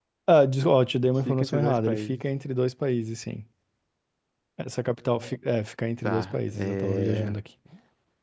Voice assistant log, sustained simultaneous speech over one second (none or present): present